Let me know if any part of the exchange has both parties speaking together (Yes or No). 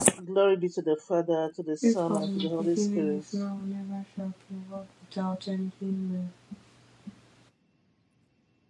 Yes